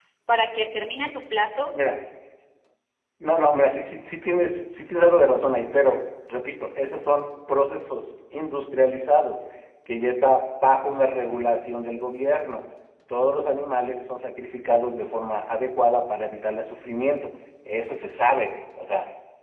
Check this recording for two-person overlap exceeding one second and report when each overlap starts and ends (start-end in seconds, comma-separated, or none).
none